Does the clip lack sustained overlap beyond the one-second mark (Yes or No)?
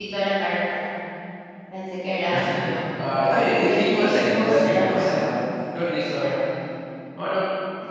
No